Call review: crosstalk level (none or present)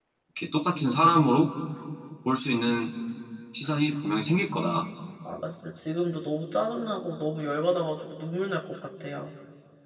none